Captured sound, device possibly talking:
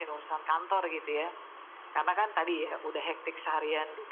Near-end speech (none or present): none